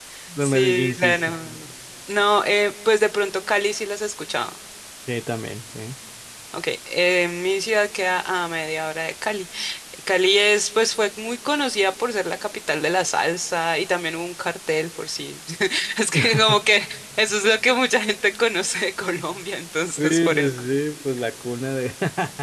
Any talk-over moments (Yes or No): Yes